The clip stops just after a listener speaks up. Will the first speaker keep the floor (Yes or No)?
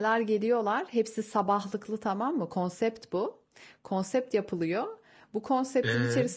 Yes